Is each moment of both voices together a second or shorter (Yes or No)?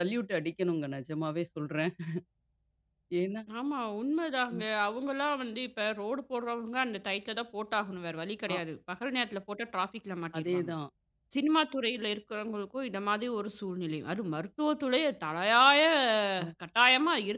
Yes